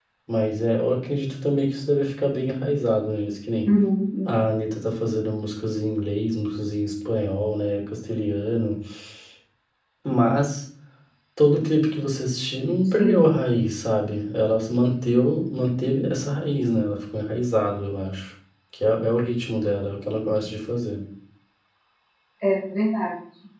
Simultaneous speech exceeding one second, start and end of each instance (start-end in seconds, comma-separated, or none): none